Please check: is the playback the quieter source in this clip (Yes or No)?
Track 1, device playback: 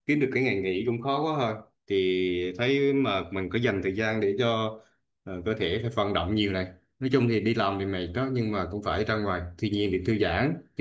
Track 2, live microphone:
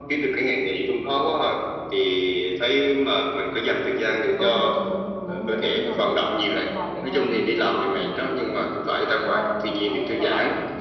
No